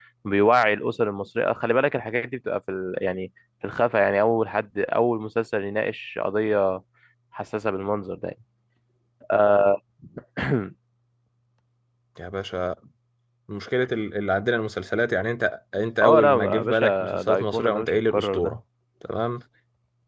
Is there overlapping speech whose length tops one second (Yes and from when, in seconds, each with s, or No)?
Yes, from 16.0 s